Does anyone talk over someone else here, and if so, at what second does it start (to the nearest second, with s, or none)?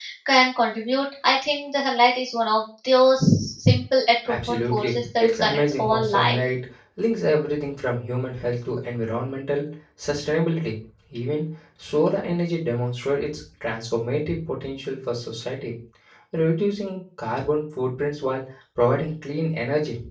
4 s